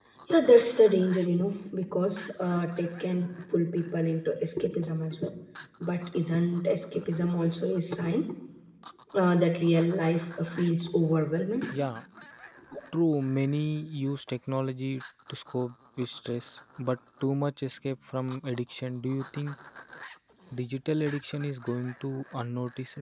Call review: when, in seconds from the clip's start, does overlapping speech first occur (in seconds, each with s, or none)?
none